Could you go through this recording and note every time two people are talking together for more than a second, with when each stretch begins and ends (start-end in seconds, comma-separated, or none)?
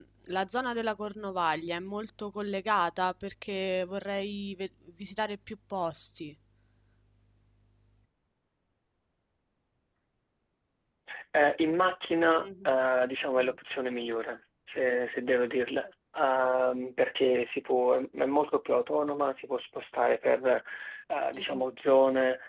none